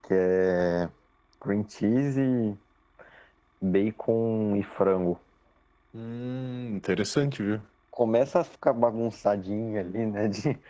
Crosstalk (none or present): none